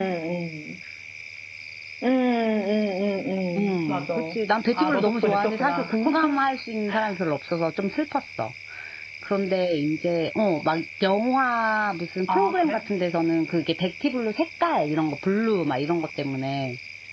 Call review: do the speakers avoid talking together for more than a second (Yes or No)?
No